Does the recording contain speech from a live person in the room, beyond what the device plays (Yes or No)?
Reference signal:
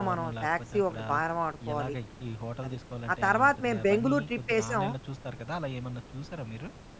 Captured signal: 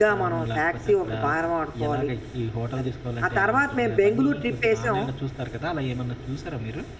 No